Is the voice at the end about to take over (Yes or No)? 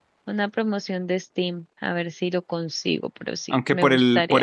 Yes